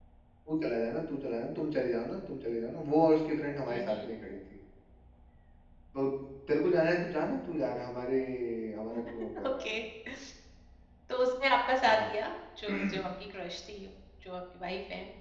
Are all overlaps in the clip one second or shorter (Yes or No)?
Yes